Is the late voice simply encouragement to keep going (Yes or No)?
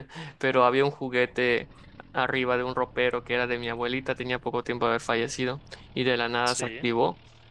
Yes